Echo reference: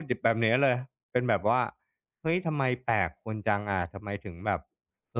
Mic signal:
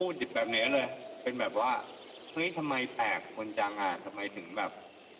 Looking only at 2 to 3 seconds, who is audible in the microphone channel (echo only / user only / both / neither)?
echo only